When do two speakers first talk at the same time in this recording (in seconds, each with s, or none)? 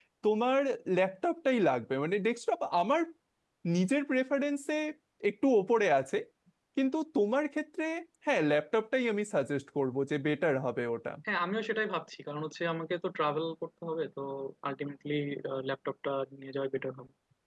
none